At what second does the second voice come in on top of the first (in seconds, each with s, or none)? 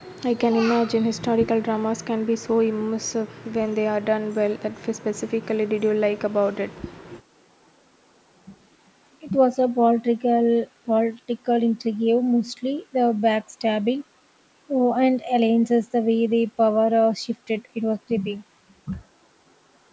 none